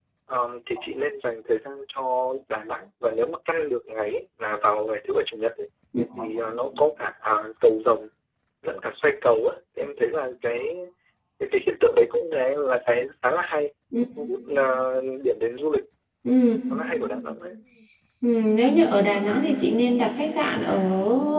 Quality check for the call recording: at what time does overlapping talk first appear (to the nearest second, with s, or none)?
none